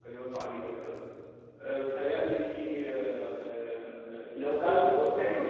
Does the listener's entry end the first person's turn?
No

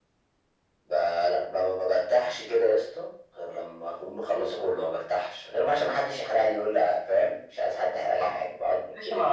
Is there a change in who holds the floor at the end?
Yes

